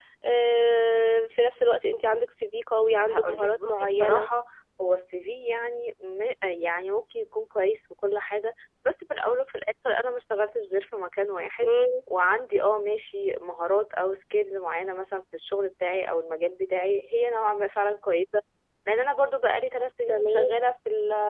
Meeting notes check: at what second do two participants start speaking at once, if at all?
2.8 s

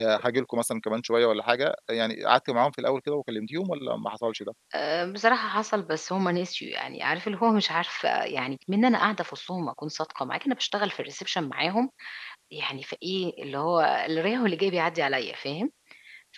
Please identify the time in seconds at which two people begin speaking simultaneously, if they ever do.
none

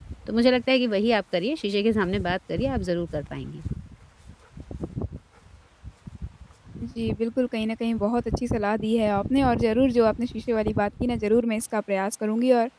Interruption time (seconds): none

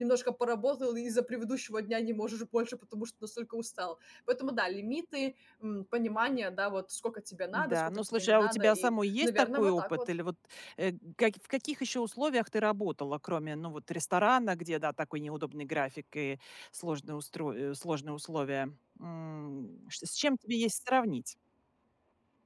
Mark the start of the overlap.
7.5 s

